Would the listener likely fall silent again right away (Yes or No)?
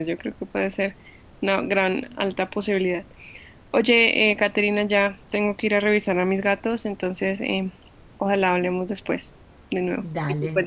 No